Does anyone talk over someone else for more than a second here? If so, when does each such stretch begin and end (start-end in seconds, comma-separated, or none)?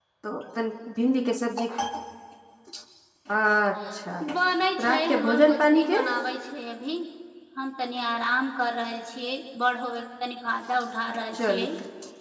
4.8-6.0